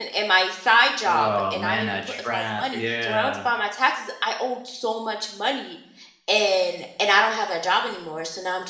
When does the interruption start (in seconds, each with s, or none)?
1.0 s